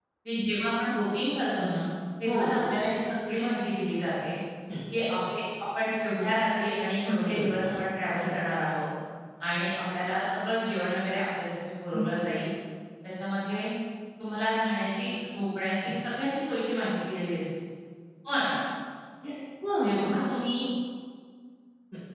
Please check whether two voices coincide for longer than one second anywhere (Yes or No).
No